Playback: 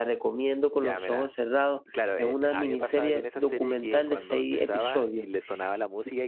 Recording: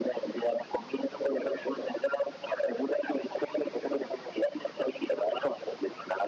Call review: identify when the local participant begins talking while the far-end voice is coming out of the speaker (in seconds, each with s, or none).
none